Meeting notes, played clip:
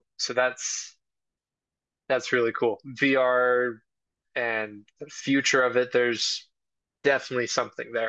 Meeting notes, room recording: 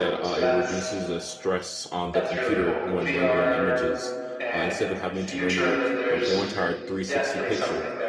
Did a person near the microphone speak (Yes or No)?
Yes